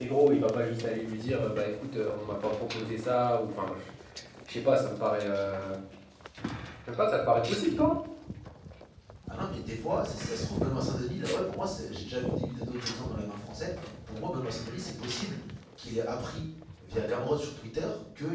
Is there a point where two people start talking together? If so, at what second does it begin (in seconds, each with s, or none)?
none